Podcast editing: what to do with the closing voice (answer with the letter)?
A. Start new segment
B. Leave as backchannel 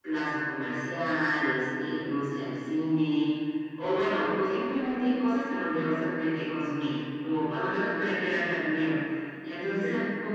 B